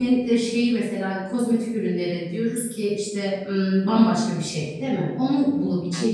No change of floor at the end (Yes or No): Yes